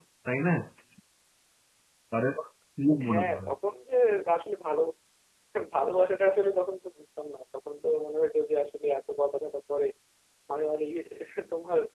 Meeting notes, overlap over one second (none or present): none